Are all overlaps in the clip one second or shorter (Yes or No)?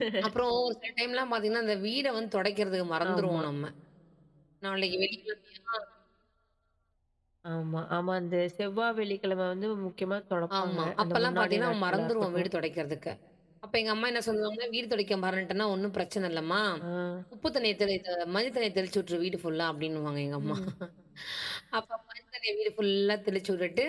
No